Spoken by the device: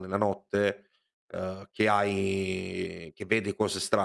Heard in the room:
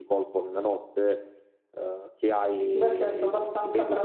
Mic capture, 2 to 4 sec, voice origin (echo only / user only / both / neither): both